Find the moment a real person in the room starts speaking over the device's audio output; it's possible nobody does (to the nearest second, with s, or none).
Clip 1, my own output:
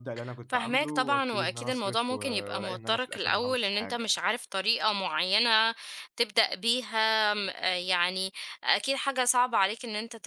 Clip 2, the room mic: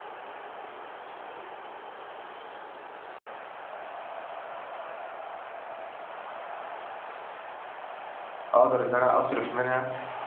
9 s